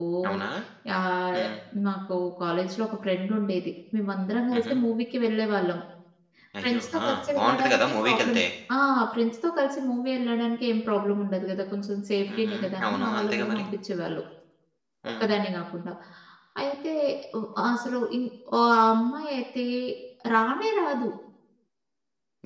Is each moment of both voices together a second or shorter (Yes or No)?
No